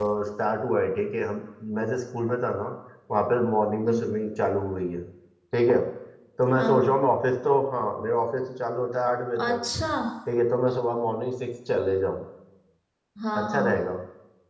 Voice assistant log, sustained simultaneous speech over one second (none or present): none